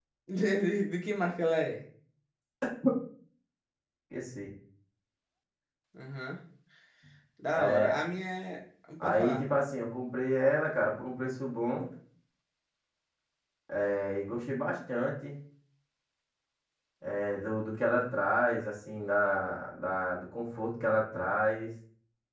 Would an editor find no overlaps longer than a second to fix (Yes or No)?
Yes